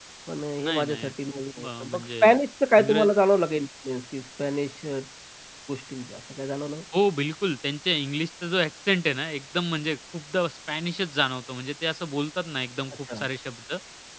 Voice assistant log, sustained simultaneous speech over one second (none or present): present